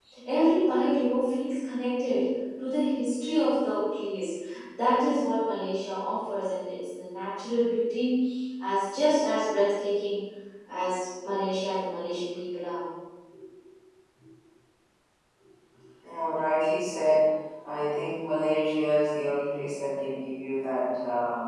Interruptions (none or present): none